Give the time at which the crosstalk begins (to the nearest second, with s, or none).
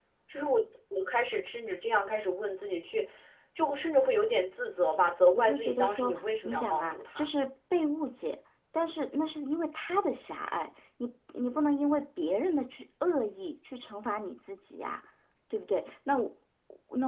5 s